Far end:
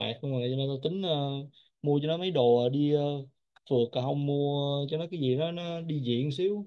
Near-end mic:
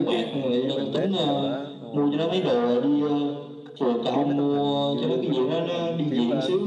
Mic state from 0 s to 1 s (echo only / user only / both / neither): both